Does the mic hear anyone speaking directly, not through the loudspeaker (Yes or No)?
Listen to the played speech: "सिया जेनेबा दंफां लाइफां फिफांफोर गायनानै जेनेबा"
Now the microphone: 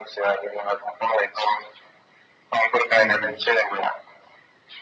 Yes